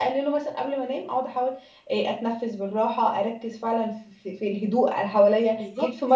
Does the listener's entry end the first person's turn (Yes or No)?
No